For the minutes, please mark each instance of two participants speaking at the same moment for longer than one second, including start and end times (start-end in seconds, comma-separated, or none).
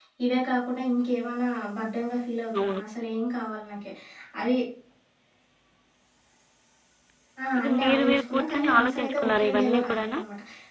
7.6-10.2